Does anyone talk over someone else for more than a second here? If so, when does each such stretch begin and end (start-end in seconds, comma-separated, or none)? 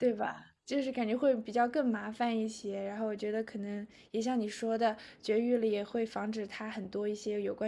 none